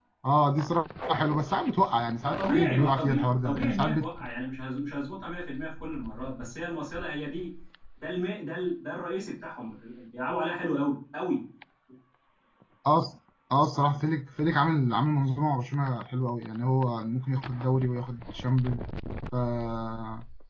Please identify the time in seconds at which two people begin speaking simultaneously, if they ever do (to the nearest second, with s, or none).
2 s